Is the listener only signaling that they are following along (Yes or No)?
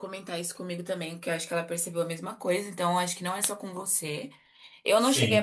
Yes